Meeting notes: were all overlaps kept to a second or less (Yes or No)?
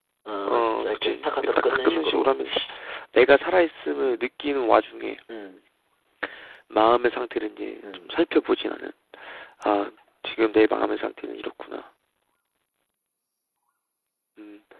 No